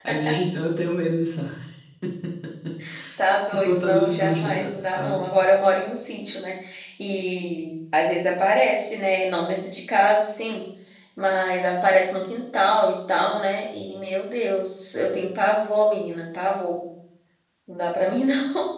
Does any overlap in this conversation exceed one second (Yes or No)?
Yes